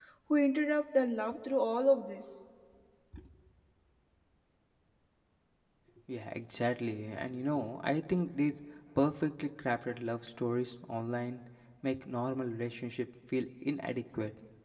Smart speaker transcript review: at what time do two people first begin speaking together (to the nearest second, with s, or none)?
none